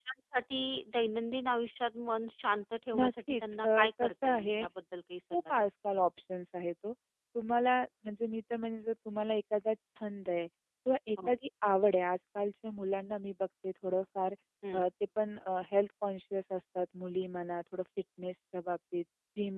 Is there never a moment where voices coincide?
No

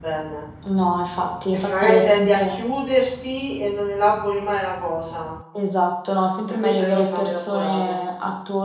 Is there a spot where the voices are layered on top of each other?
Yes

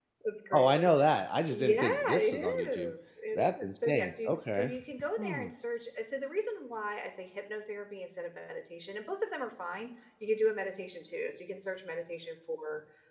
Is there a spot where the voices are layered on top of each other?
Yes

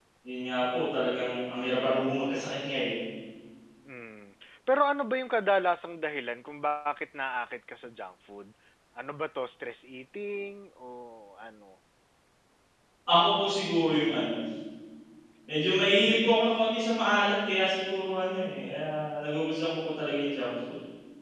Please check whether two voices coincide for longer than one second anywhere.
No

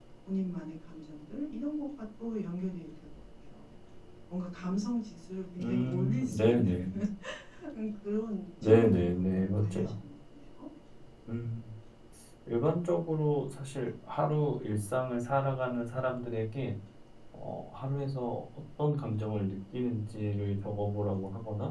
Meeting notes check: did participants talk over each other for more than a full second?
Yes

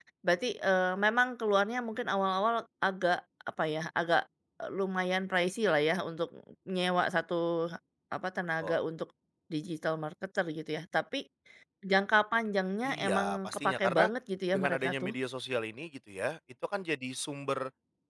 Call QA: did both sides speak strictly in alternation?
No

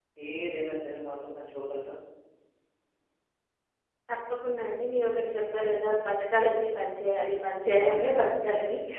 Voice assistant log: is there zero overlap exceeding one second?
Yes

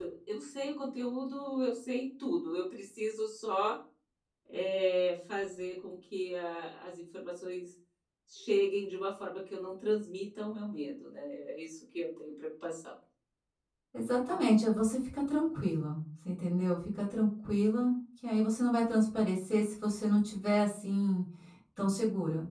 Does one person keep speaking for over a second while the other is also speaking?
No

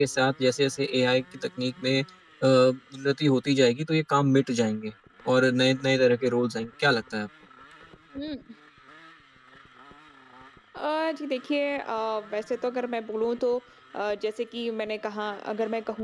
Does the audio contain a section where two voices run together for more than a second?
No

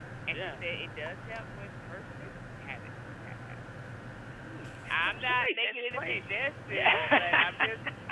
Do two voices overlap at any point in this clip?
Yes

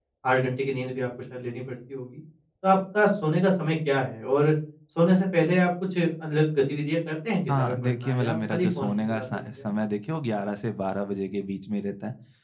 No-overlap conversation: No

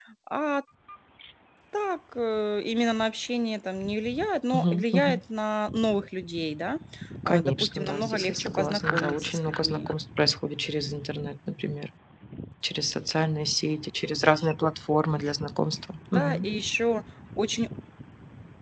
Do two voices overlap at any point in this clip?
Yes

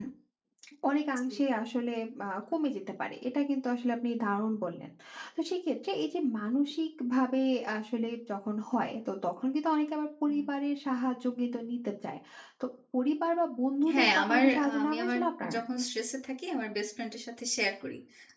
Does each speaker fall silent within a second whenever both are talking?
No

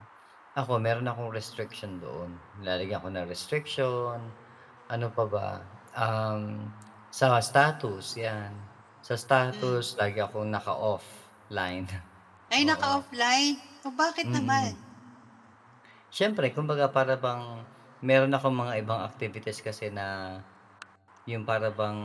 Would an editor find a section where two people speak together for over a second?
No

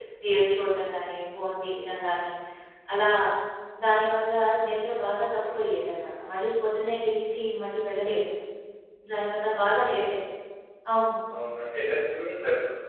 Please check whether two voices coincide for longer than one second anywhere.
No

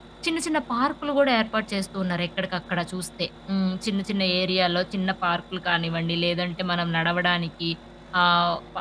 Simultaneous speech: No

